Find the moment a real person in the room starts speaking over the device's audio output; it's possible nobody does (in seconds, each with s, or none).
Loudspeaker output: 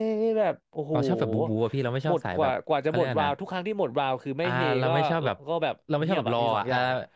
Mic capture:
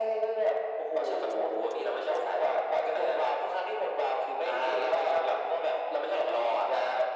none